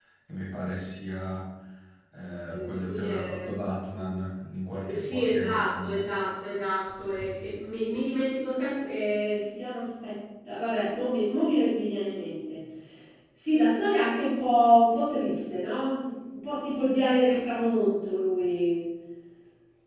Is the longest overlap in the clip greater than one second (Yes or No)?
Yes